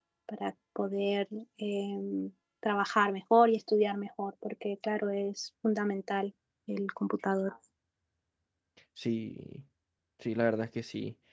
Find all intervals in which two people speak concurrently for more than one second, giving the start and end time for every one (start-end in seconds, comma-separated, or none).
none